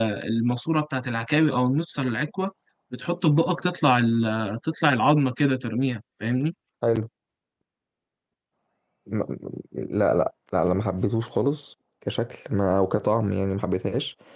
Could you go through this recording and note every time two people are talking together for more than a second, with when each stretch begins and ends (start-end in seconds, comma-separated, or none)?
none